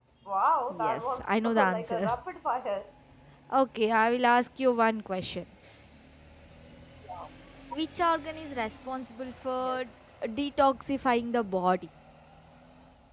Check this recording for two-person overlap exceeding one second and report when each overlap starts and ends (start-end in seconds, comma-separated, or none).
0.7-2.2